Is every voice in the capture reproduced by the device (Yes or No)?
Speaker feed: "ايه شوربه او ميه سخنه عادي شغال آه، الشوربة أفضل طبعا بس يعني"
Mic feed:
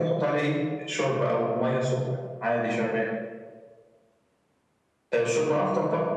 Yes